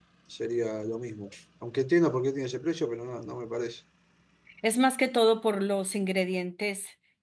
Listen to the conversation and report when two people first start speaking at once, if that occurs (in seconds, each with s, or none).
none